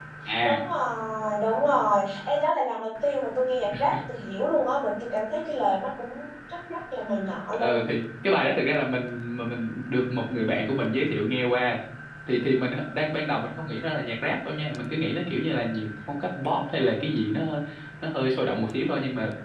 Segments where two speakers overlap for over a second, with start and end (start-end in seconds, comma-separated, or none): none